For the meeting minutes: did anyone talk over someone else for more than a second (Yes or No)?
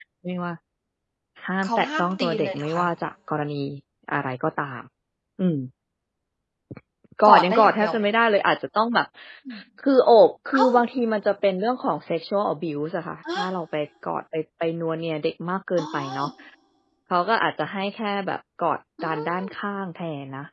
Yes